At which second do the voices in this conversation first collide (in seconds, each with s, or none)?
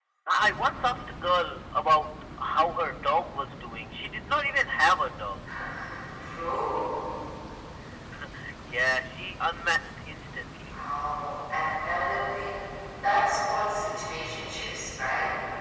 none